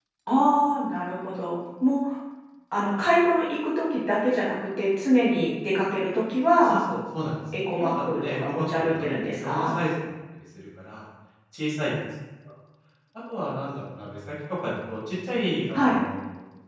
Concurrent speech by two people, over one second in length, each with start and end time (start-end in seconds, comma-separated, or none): 7.8-9.7